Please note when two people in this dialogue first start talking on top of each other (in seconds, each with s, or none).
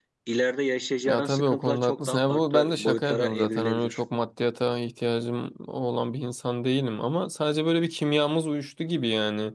1.1 s